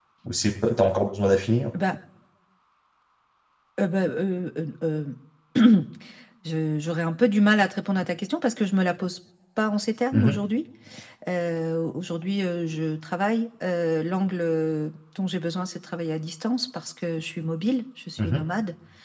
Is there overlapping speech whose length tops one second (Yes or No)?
No